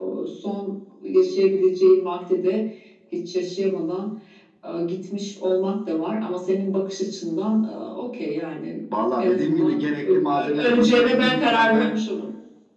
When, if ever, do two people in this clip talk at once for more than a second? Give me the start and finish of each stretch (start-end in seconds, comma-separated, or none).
9.2-11.9